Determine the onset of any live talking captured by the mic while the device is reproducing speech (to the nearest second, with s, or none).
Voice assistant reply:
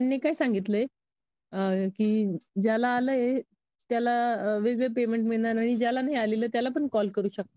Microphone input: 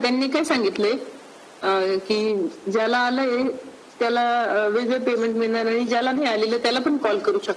none